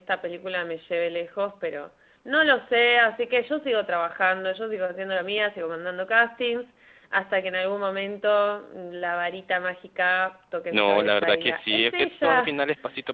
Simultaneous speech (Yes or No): Yes